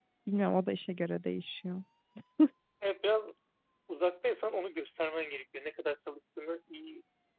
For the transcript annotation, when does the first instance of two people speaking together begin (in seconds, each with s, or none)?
none